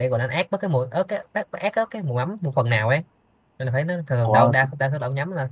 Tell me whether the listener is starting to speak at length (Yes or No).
No